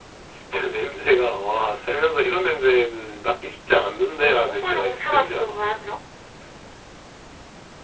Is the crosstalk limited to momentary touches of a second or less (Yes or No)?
No